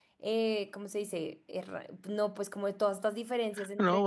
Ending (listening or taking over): taking over